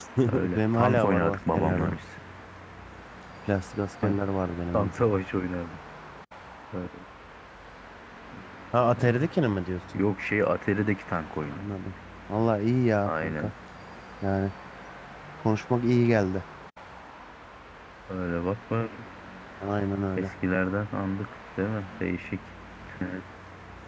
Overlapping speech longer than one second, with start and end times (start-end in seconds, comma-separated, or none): 0.6-1.9